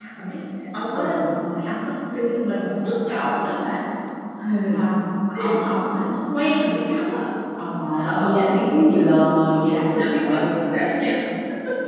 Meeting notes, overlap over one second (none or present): present